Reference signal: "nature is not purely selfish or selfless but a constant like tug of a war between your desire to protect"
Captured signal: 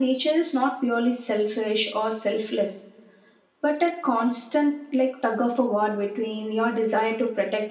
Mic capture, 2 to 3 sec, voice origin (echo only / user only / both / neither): echo only